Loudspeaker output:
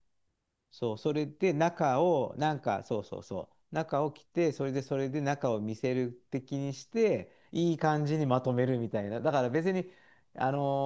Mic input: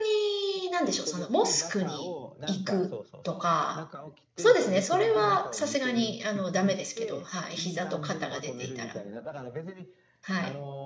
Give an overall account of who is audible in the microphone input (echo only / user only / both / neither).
both